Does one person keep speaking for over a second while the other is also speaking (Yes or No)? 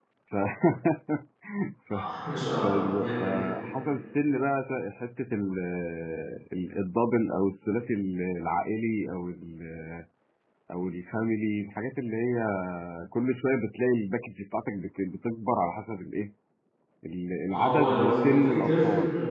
Yes